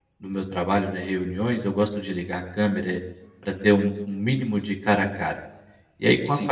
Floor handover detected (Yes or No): No